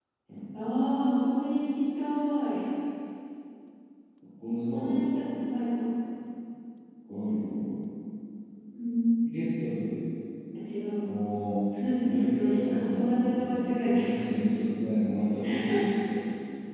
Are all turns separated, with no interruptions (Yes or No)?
No